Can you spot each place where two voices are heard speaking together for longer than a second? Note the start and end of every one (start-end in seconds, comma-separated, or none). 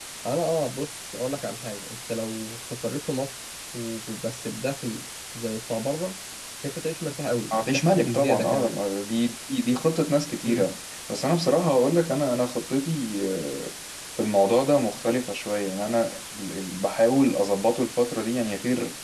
7.5-8.8